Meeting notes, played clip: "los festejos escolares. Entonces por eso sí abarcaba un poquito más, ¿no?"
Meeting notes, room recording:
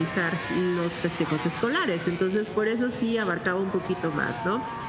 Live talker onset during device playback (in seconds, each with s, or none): none